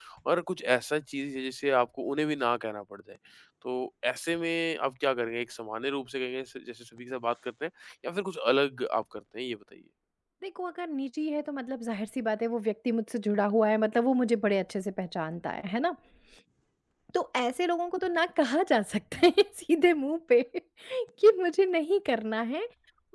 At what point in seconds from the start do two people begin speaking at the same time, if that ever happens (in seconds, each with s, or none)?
none